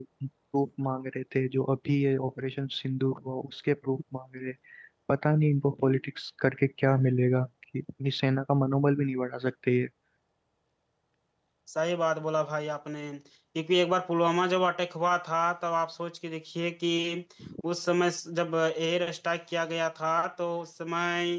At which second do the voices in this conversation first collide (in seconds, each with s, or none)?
none